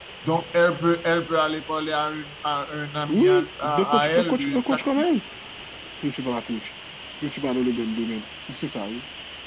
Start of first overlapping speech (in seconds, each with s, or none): 3.1 s